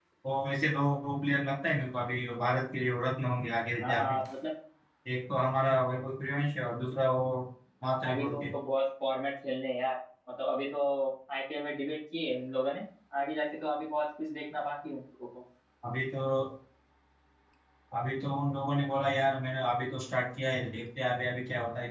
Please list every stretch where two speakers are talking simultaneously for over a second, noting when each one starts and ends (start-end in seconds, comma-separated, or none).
none